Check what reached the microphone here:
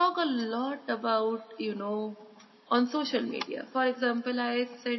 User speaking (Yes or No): Yes